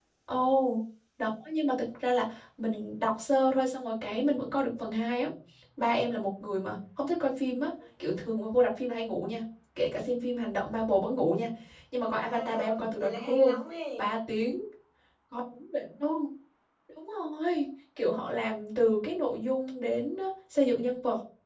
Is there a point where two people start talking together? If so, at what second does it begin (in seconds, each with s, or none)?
12.0 s